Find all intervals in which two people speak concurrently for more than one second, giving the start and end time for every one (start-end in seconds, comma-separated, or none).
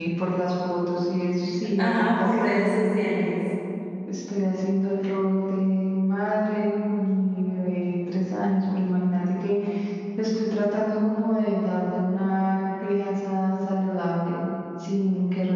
1.8-3.0